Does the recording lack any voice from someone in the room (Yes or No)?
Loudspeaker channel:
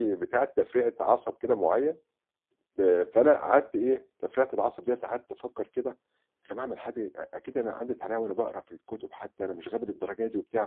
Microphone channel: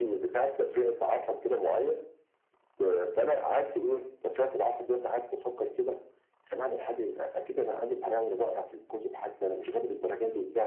Yes